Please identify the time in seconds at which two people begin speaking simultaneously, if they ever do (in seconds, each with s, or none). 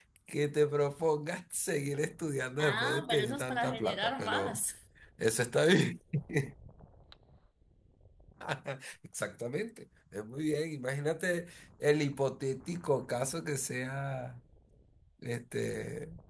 2.6 s